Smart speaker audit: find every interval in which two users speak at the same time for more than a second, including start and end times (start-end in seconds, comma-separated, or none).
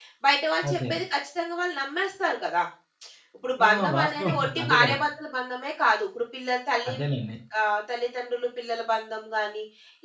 3.6-5.0